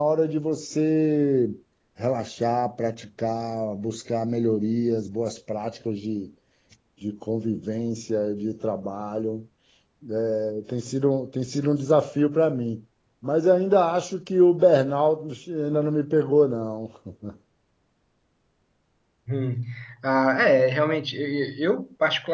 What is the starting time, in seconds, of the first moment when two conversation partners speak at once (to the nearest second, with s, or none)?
none